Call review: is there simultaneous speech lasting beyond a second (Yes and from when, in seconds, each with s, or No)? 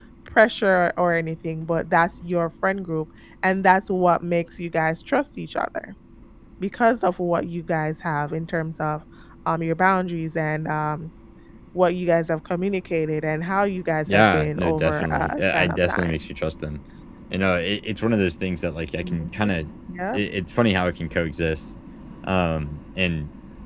Yes, from 14.1 s